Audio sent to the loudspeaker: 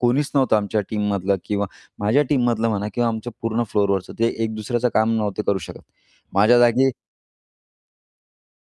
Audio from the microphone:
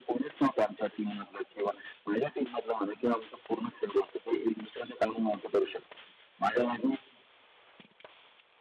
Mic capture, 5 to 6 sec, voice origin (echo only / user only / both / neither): echo only